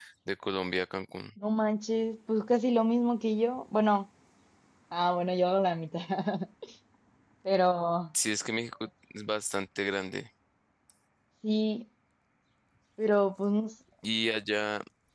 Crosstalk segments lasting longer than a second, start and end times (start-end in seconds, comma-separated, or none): none